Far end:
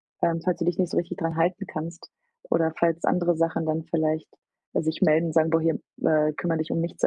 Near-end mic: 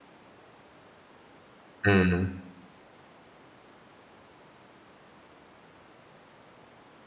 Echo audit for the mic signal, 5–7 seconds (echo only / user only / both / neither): neither